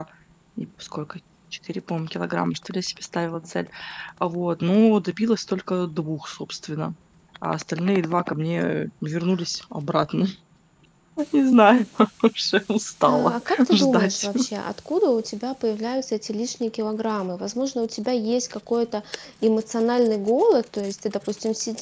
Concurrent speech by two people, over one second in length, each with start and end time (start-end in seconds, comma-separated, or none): 13.1-14.3